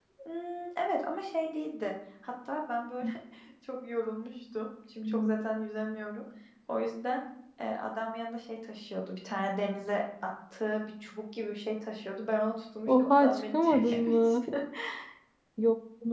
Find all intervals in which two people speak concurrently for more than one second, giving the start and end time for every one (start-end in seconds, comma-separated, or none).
12.9-14.5